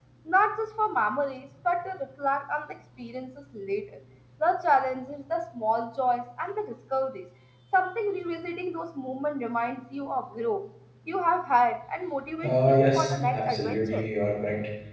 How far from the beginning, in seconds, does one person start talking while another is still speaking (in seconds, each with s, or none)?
12.4 s